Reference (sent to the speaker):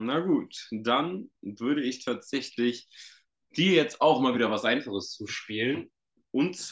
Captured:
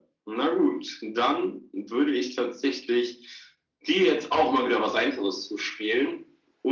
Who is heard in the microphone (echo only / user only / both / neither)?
echo only